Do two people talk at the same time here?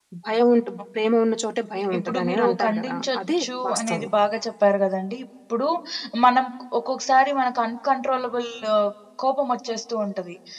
Yes, from 1.8 s

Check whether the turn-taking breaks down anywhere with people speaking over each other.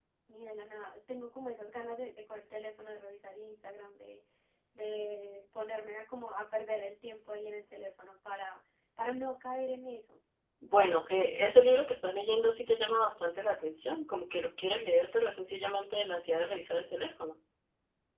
No

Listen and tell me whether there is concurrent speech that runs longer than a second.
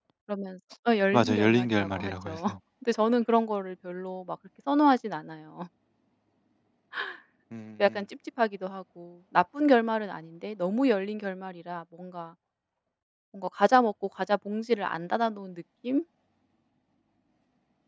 Yes, from 1.1 s

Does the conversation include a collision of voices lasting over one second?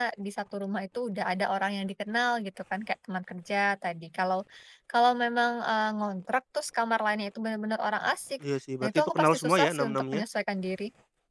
Yes, from 8.8 s

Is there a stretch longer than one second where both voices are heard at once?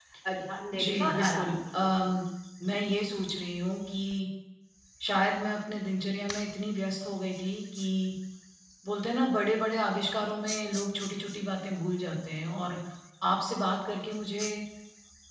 Yes, from 0.8 s

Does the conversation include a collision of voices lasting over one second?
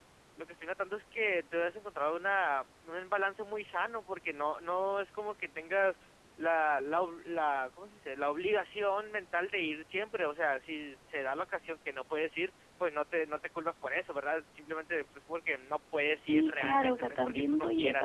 Yes, from 16.1 s

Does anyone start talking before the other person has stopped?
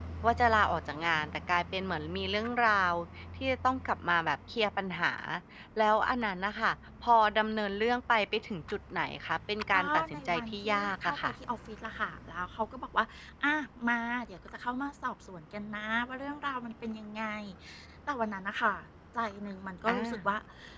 Yes, from 9.7 s

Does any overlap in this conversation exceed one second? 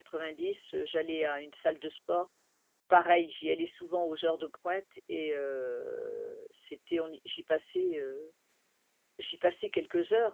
No

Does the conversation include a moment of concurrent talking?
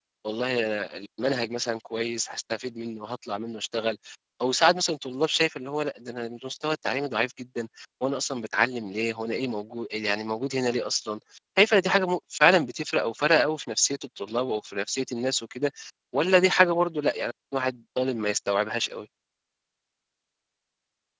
No

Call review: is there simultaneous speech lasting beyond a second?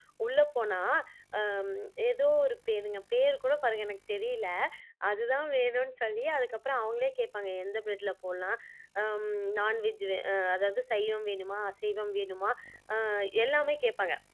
No

